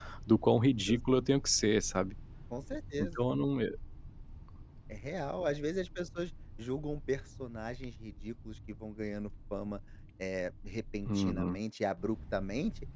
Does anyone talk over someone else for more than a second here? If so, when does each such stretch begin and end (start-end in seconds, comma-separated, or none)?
none